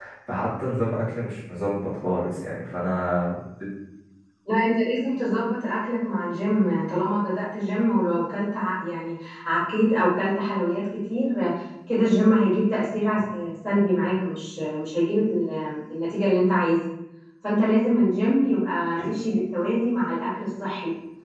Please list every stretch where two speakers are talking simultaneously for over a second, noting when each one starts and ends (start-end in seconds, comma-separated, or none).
none